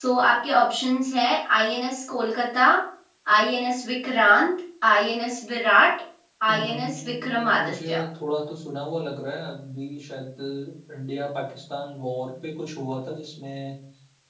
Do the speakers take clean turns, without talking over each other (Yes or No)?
No